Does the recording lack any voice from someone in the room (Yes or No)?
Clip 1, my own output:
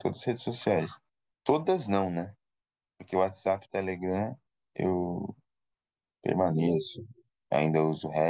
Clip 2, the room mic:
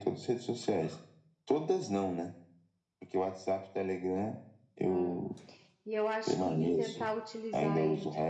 No